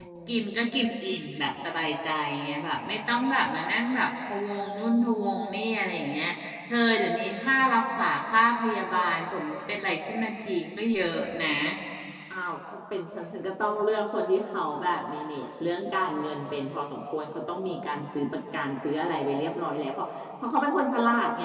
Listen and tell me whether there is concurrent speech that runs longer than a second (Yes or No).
No